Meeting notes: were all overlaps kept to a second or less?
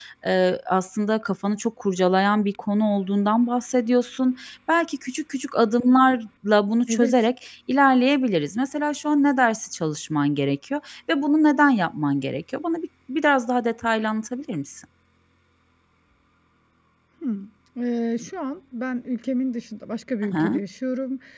Yes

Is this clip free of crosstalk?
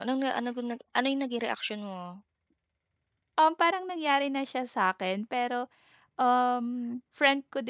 Yes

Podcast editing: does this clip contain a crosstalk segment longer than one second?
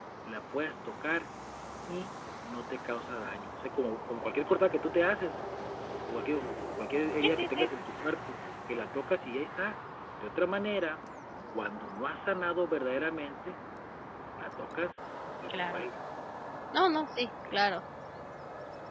No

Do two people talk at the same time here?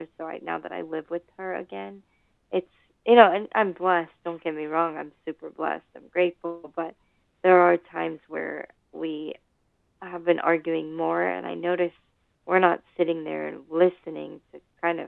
No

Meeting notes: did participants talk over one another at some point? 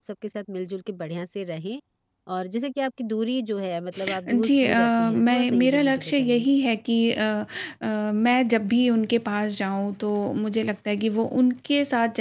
Yes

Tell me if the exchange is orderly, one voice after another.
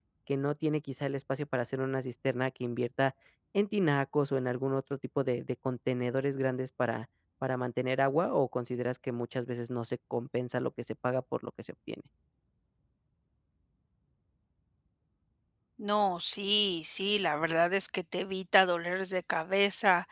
Yes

